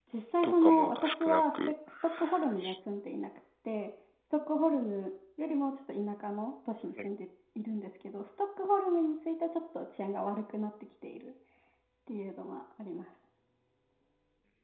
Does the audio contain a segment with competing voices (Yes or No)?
Yes